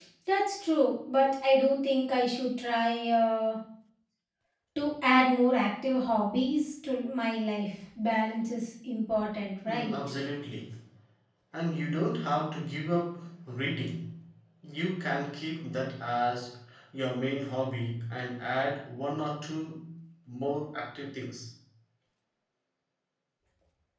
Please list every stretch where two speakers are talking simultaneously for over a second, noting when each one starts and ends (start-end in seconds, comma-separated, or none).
none